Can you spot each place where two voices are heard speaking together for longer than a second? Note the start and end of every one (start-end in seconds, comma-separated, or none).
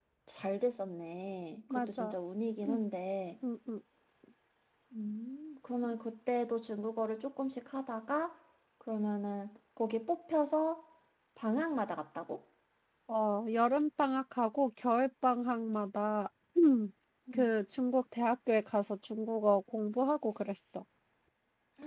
none